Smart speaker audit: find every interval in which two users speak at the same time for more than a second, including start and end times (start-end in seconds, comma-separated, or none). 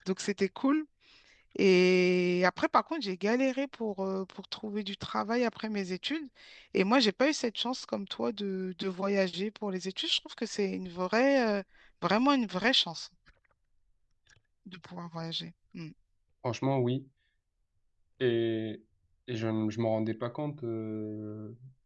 none